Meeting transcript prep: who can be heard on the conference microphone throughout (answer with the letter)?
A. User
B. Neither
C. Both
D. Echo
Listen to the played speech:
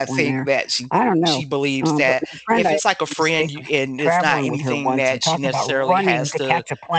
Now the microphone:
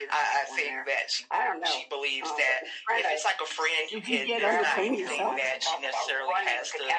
C